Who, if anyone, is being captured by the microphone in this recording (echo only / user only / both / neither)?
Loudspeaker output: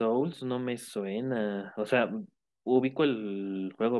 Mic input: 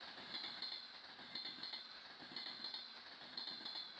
neither